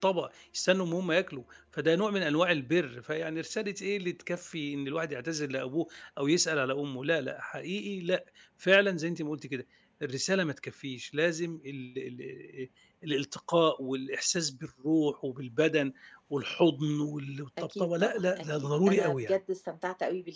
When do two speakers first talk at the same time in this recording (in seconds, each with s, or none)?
17.6 s